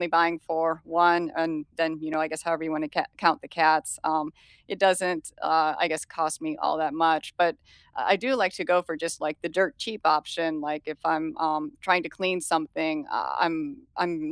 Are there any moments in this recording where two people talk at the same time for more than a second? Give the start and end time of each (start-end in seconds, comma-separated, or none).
none